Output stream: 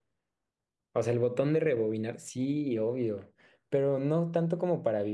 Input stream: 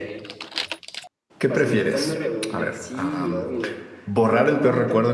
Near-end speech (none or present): present